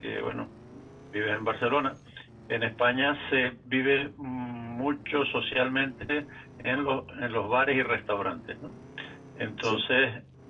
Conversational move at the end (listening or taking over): listening